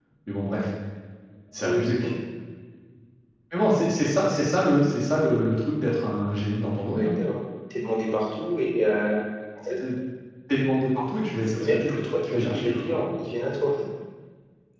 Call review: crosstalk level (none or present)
present